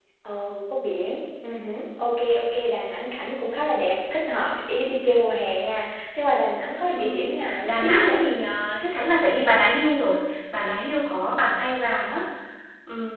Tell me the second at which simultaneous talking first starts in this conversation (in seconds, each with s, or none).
6.9 s